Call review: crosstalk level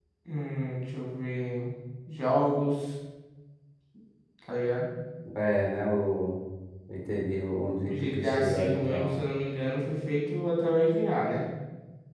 present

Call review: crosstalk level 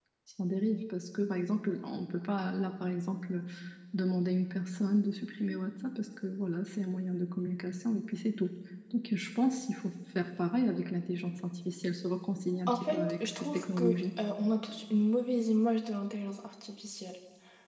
present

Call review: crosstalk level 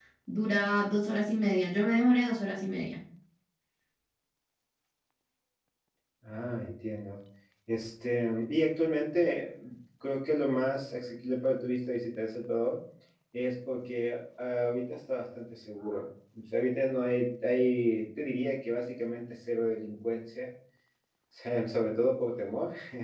none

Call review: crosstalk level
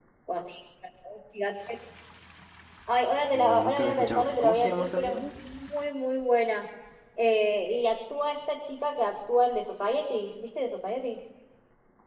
present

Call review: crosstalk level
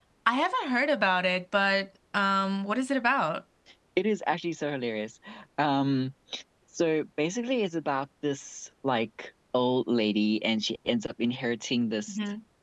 none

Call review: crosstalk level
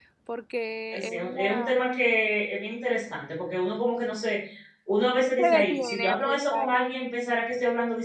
present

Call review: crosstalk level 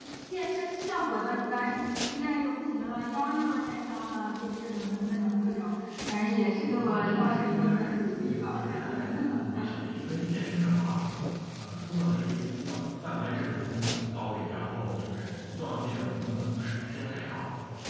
present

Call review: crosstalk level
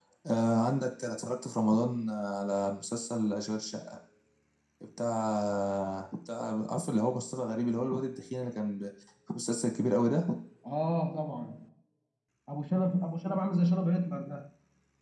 none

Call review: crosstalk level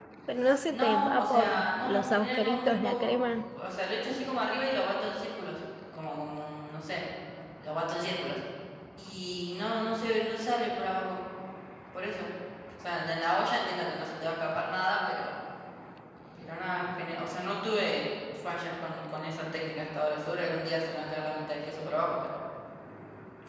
present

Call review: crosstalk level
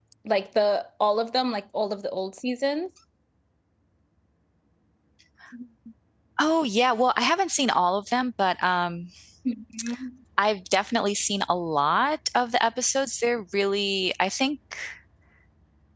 none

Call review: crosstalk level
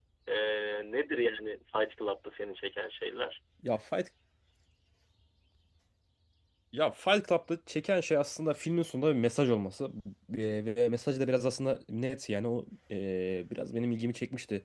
none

